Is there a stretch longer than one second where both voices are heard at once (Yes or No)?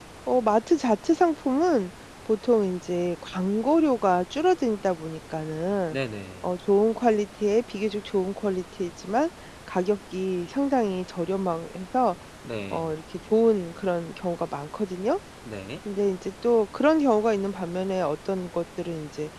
No